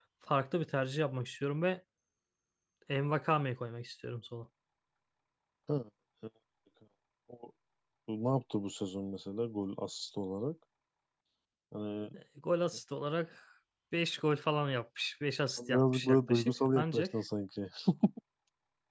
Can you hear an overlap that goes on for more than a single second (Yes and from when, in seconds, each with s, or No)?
Yes, from 15.6 s